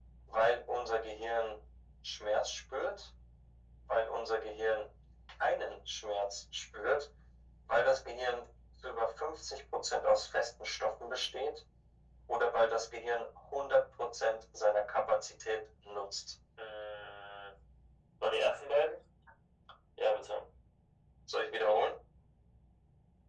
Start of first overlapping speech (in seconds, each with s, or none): none